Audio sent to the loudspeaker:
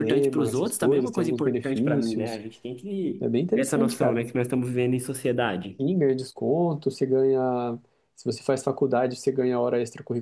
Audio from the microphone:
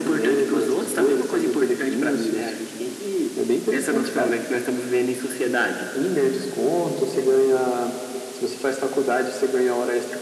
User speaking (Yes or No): No